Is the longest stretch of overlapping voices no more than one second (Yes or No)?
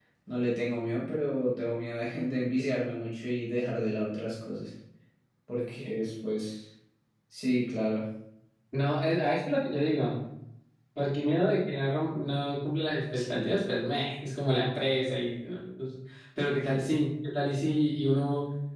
Yes